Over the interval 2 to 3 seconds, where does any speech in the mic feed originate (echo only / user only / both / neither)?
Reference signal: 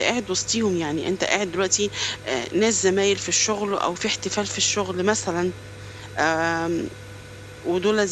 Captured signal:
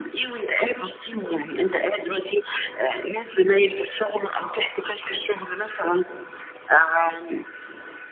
echo only